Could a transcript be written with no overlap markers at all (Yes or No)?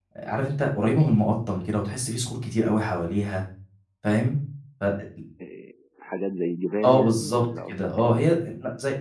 No